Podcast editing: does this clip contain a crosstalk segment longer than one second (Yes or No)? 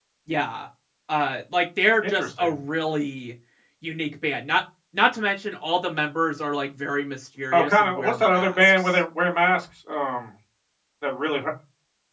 Yes